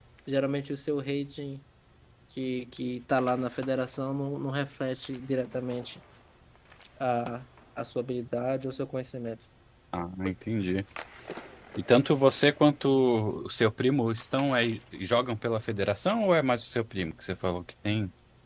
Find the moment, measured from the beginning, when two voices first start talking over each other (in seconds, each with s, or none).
none